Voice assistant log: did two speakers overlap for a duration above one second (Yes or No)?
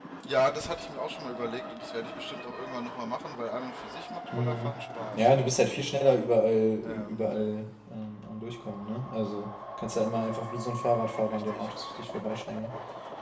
No